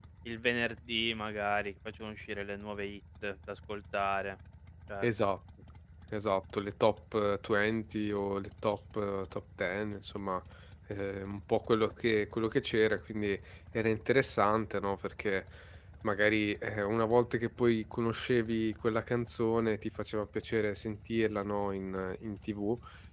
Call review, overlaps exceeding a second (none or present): none